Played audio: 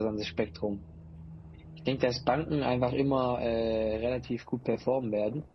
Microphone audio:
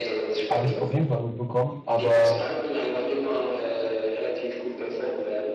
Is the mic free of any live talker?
No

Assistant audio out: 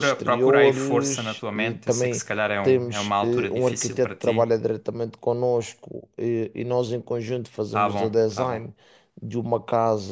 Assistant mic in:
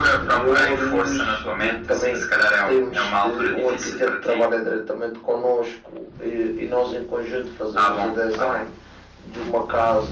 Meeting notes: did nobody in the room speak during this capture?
Yes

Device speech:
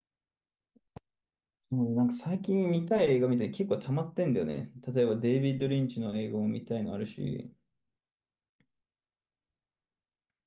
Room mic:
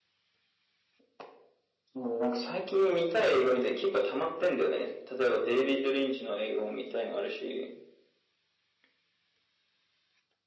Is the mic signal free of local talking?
Yes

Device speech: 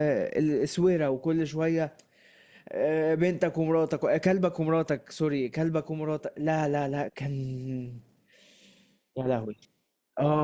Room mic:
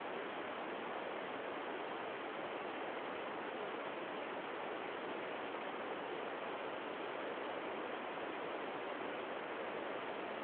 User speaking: No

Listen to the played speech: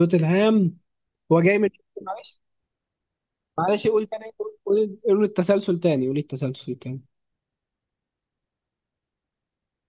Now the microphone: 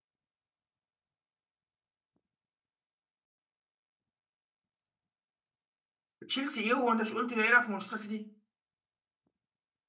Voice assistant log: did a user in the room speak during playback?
Yes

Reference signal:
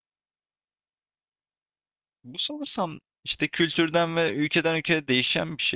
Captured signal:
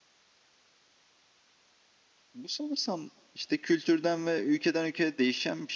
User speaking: No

